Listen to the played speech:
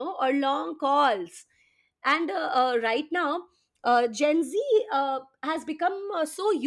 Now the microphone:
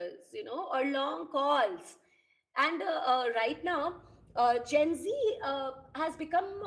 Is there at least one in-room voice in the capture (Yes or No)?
No